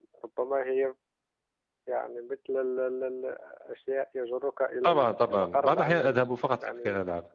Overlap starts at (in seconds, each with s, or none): 4.8 s